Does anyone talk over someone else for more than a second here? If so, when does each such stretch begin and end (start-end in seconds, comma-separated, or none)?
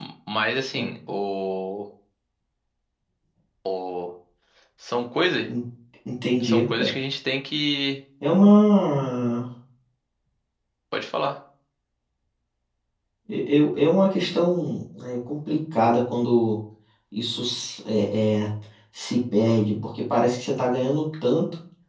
none